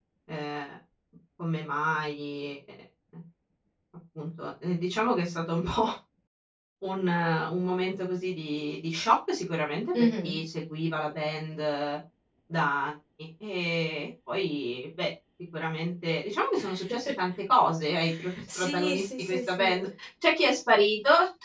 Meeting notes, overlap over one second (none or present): present